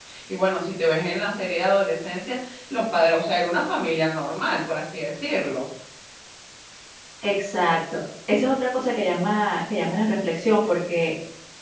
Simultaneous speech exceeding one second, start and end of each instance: none

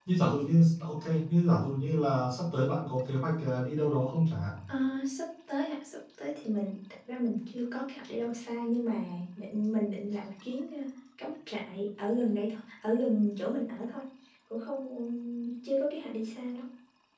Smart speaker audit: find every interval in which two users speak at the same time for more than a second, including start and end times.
none

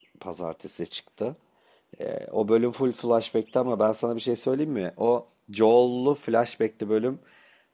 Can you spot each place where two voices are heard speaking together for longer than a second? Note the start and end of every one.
none

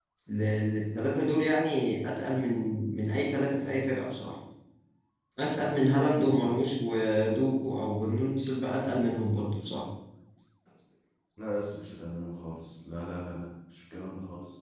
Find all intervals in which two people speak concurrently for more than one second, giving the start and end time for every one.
none

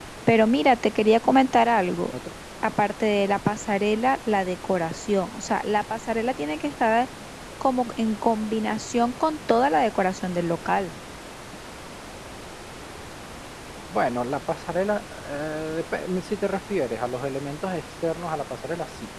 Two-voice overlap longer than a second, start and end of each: none

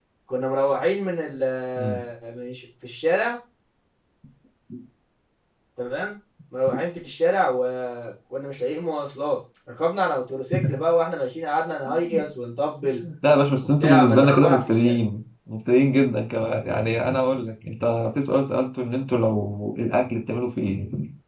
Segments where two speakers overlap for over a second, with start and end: 13.6-15.0

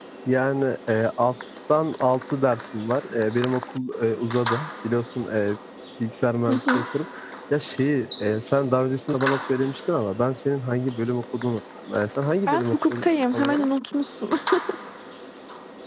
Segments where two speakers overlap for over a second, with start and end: 12.5-13.7

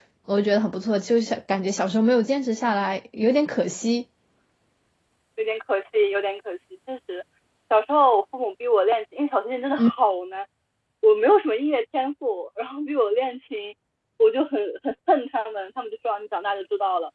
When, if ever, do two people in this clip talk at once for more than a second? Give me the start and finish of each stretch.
none

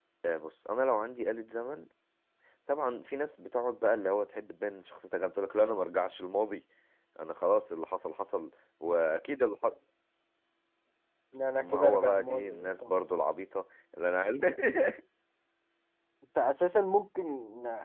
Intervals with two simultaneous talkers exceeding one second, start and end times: 11.6-13.0

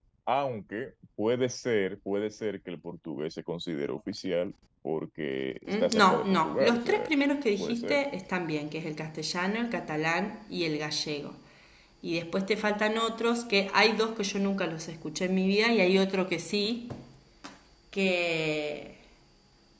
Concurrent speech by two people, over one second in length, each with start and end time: 5.7-7.1

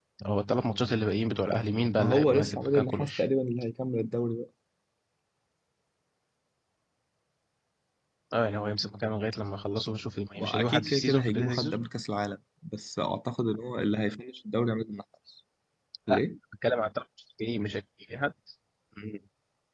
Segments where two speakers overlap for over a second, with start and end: 2.0-3.3, 10.4-11.8

